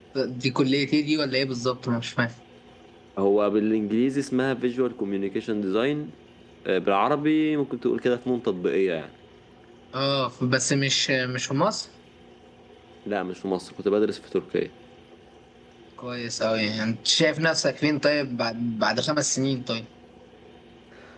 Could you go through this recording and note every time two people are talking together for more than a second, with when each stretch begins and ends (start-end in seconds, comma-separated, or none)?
none